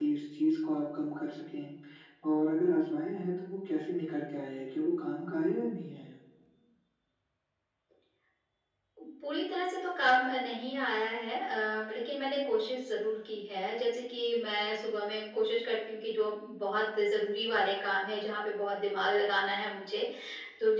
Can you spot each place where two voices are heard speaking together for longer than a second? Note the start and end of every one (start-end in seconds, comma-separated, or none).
none